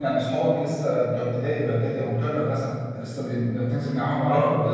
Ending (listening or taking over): taking over